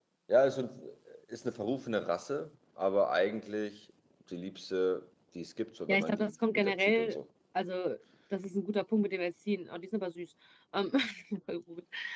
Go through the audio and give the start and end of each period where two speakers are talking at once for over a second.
5.9-7.2

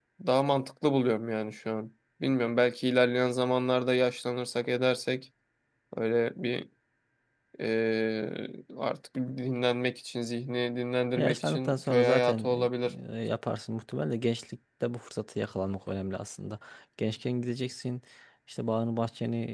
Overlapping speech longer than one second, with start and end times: 11.2-12.7

